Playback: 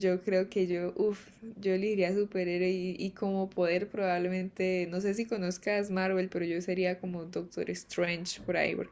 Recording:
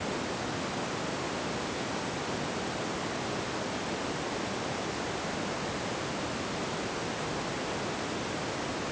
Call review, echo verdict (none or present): none